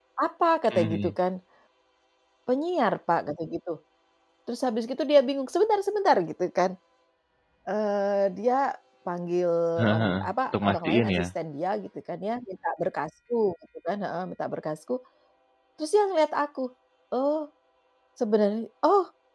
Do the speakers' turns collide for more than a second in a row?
Yes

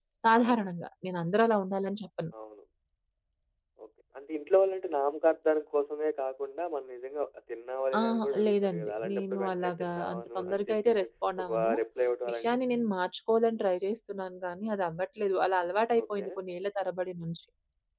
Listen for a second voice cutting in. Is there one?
Yes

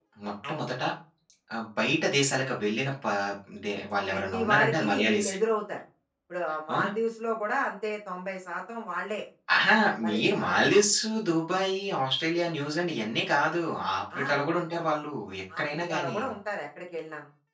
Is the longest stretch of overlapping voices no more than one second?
No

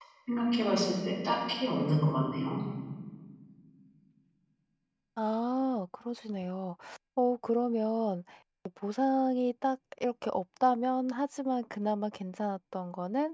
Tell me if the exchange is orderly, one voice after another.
Yes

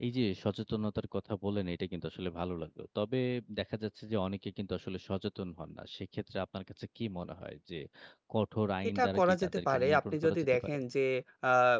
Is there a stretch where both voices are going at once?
Yes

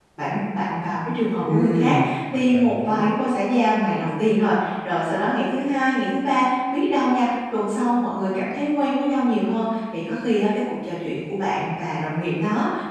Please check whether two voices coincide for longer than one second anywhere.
Yes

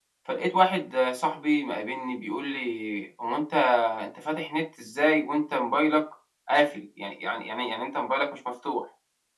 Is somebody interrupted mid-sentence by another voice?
No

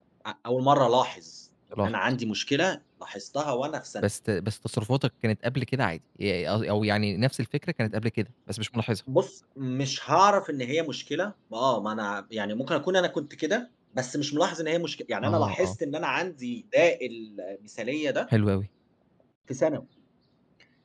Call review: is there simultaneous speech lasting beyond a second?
No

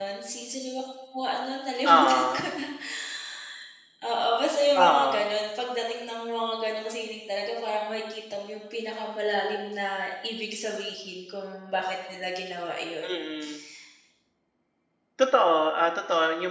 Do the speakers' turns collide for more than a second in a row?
No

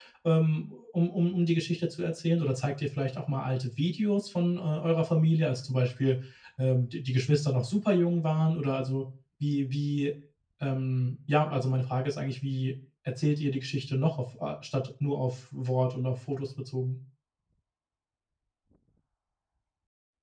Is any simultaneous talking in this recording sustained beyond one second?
No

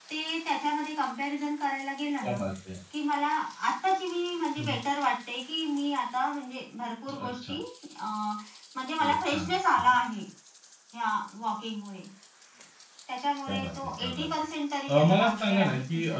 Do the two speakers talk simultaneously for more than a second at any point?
Yes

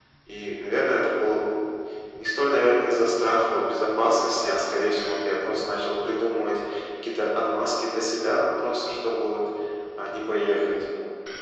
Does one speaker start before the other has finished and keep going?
No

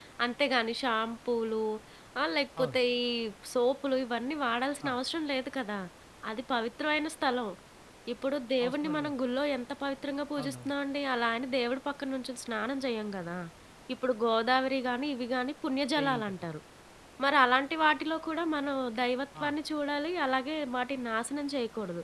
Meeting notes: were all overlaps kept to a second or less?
Yes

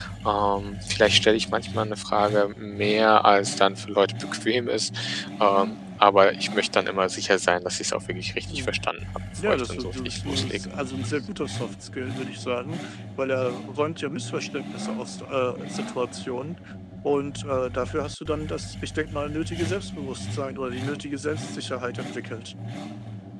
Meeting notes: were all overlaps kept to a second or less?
No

